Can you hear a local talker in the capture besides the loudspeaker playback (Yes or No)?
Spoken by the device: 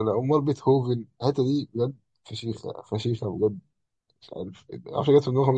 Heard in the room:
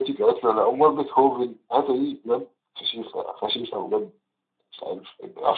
No